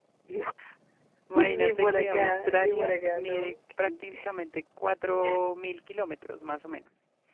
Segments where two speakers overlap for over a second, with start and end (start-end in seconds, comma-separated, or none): 1.4-4.2